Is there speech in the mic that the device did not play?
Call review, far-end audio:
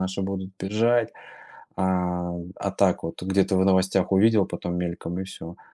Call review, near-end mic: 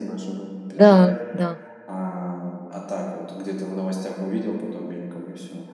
Yes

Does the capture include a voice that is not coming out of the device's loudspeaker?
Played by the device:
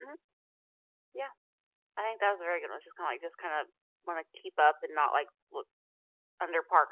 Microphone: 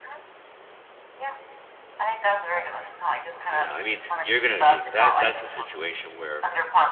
Yes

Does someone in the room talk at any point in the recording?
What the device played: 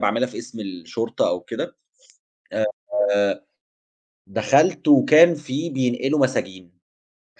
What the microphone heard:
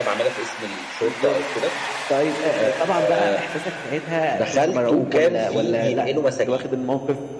Yes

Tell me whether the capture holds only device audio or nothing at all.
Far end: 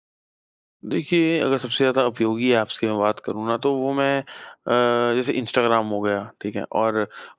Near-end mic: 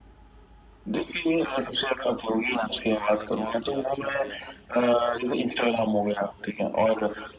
No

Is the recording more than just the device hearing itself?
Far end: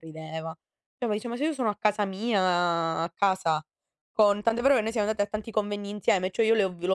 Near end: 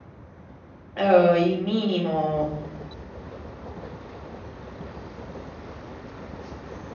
Yes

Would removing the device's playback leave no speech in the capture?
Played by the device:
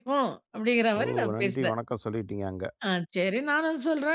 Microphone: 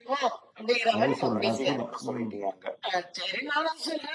No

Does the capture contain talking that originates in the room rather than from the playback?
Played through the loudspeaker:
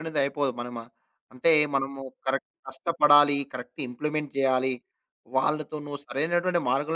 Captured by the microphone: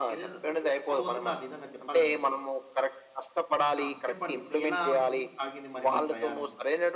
Yes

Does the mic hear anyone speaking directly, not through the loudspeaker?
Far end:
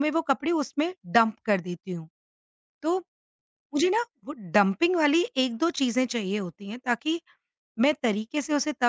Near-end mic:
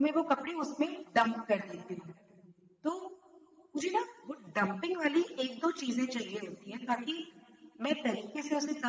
No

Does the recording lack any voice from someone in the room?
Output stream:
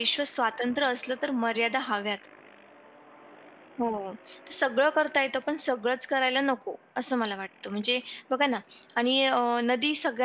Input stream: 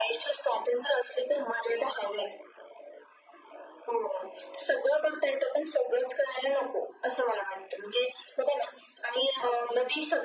Yes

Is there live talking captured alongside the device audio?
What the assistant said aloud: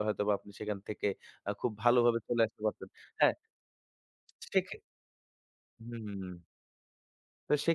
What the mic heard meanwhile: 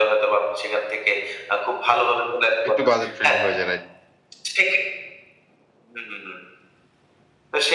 Yes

